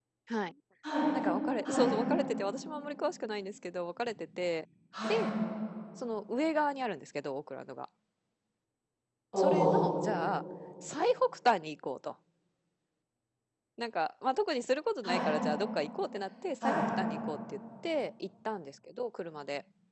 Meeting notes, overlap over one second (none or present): none